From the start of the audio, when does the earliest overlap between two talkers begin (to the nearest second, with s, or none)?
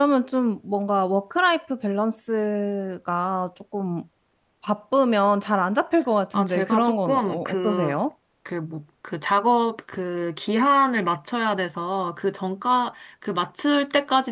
6 s